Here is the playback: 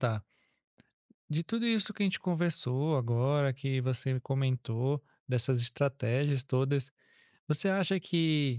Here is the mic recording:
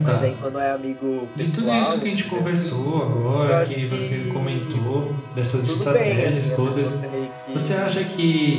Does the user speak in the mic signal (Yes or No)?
Yes